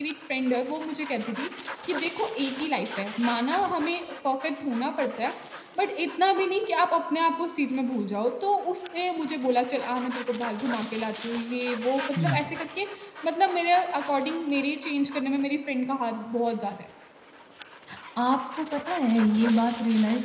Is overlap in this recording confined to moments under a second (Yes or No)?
Yes